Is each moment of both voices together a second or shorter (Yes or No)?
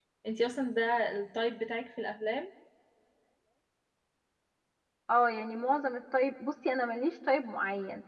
Yes